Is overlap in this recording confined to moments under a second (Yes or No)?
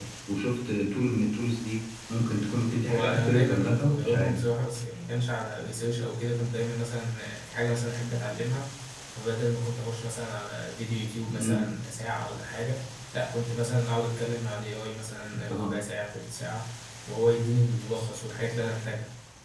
No